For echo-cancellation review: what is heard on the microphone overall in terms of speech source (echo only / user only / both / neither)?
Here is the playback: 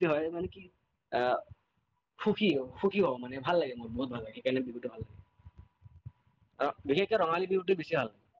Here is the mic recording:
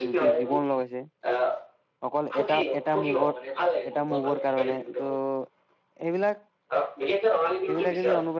both